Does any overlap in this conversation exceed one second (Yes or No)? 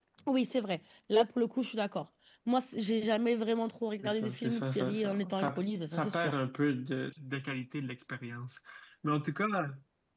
Yes